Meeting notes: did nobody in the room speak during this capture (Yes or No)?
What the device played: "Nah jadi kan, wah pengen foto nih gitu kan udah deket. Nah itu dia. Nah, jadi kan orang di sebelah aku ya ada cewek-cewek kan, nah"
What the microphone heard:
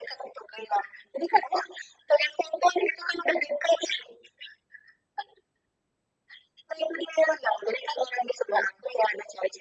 Yes